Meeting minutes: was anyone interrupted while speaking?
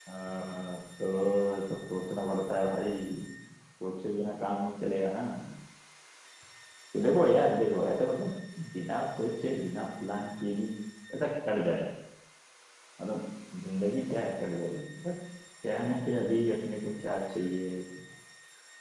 No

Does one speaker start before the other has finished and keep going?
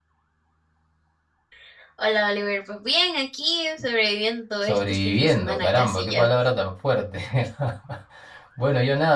Yes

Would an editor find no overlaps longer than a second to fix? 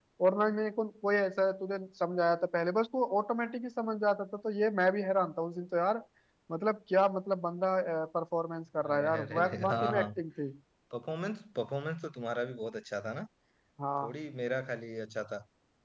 No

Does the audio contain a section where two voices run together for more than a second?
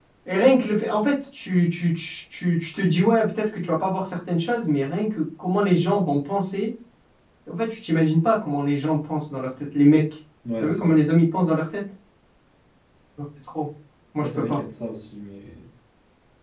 No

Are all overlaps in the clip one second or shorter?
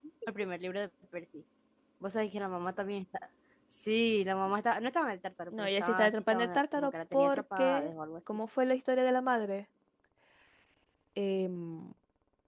No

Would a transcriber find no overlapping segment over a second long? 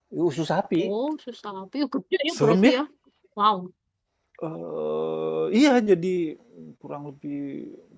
Yes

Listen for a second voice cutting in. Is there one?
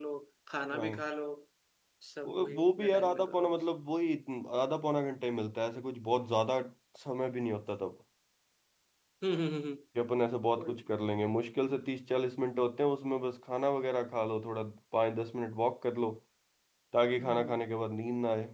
Yes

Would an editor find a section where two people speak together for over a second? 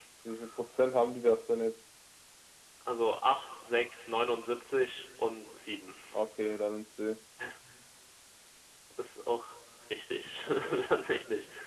No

